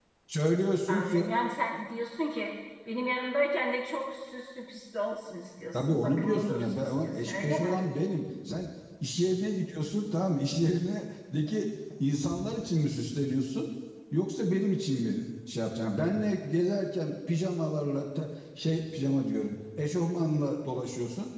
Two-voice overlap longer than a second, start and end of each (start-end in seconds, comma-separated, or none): 5.7-7.8